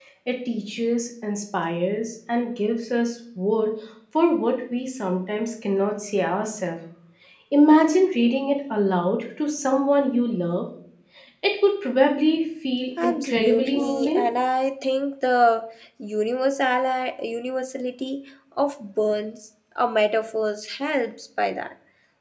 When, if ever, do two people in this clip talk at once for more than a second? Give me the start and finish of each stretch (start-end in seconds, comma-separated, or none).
13.0-14.3